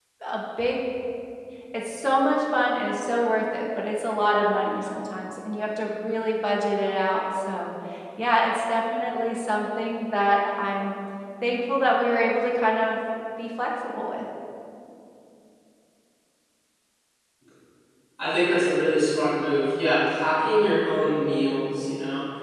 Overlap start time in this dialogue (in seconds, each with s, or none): none